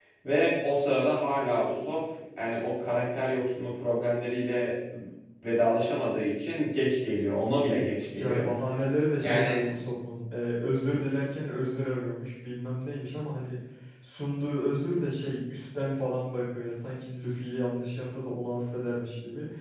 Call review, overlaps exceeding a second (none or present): none